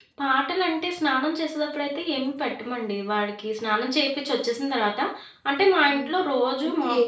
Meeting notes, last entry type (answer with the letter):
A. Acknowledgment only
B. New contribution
B